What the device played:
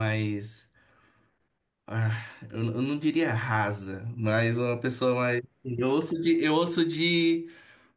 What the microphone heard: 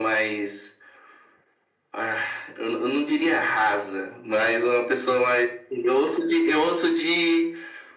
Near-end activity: none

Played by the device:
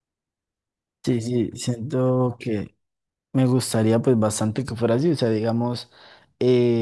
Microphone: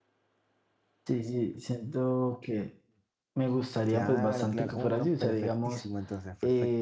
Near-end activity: present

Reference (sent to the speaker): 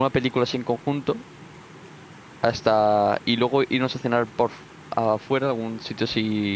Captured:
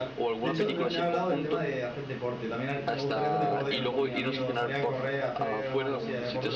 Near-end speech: present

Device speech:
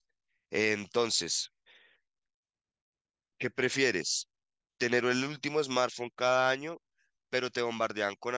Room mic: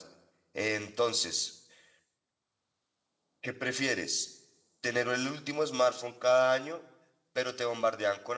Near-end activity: none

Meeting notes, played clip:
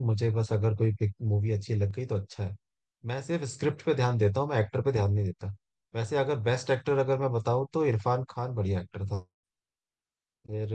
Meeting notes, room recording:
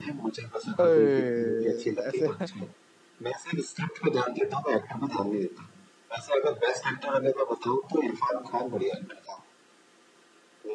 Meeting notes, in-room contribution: present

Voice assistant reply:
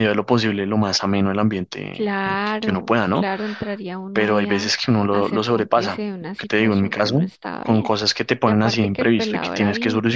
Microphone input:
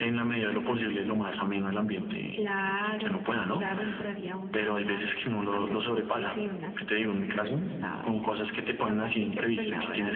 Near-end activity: none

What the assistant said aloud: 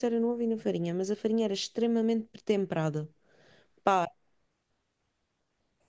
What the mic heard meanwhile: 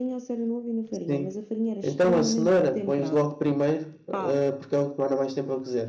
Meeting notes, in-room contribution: present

